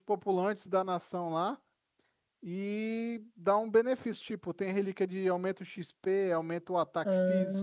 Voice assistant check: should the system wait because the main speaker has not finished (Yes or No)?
No